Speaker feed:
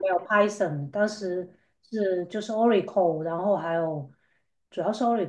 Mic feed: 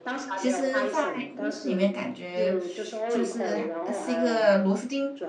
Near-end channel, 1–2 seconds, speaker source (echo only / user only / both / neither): both